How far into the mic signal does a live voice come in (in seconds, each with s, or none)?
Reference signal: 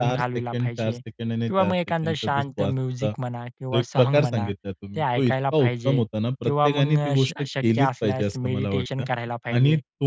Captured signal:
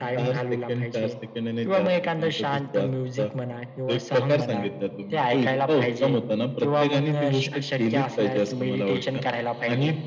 none